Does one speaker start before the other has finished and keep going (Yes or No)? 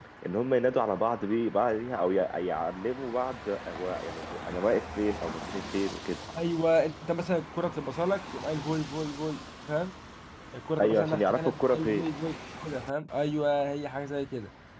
Yes